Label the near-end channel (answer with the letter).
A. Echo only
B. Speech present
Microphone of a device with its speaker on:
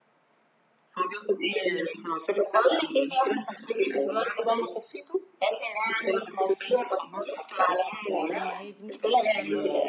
B